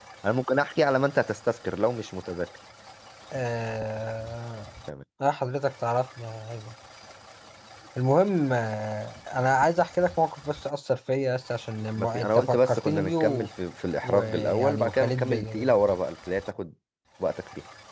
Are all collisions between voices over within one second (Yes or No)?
No